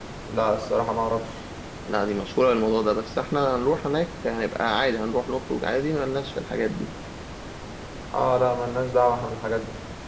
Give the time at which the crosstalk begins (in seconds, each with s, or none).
none